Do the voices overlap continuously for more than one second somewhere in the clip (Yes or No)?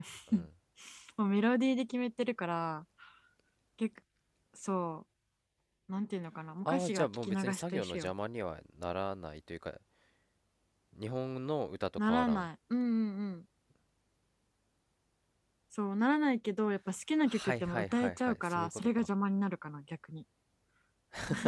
Yes